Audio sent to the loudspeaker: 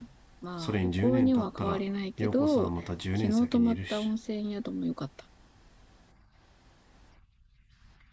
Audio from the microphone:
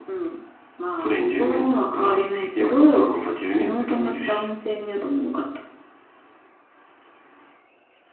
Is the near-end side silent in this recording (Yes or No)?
Yes